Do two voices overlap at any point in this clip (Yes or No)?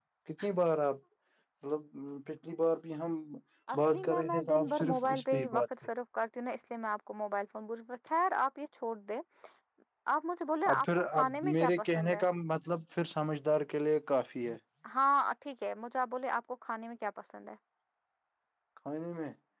Yes